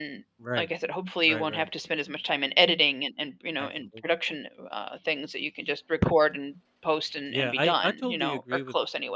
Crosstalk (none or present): present